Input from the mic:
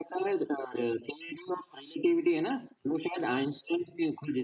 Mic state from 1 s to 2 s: echo only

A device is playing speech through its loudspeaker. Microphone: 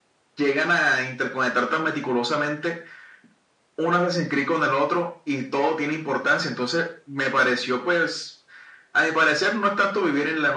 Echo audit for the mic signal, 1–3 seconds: echo only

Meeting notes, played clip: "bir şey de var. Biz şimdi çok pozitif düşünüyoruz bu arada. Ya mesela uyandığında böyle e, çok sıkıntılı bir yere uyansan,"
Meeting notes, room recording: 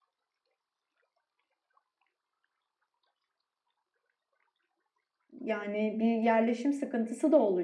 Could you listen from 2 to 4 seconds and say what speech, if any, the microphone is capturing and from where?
neither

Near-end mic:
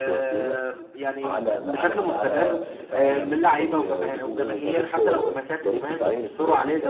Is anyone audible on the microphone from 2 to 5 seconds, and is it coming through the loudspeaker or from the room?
both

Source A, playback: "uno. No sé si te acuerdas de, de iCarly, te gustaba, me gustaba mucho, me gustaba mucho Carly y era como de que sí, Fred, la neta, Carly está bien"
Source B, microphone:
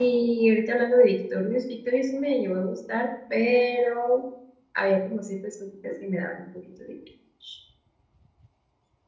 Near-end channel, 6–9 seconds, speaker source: user only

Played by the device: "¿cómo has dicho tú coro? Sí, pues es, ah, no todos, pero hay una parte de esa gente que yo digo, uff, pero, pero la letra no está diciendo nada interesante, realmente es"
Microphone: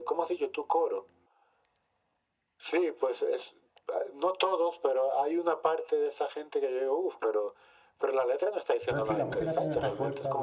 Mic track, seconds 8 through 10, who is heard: both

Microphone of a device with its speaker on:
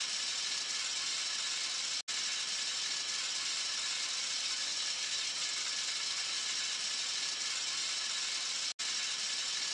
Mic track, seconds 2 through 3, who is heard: neither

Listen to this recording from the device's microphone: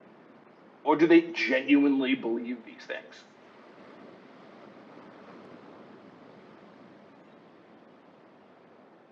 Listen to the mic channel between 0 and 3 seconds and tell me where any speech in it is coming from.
user only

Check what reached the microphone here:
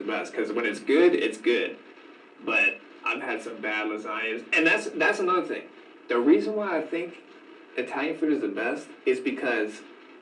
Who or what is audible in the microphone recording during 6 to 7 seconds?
echo only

